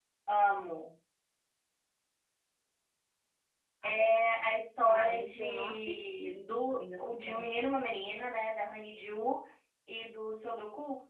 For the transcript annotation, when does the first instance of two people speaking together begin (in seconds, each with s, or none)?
4.9 s